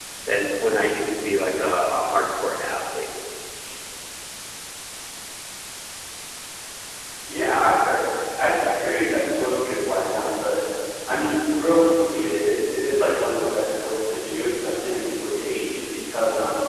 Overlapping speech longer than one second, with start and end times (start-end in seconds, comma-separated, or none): none